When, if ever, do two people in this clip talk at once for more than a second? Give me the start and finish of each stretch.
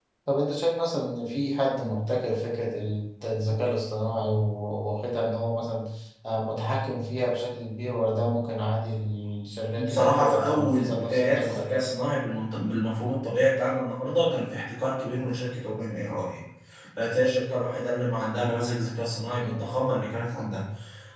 9.8-11.8

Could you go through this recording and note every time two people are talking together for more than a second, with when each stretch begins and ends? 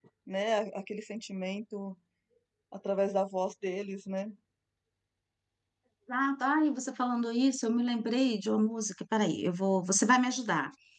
none

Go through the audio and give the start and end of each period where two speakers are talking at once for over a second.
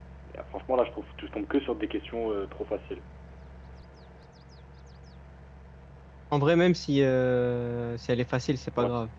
none

